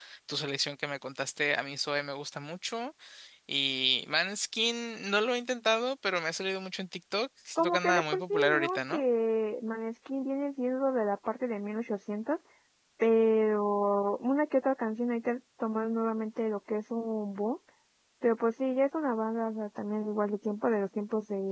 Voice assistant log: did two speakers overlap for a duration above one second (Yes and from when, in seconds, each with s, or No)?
Yes, from 7.6 s